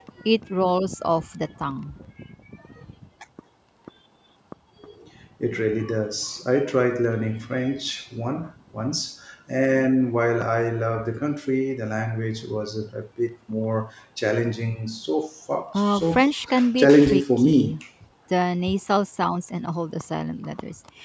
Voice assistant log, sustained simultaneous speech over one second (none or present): present